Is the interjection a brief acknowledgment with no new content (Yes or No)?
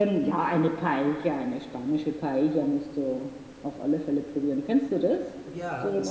No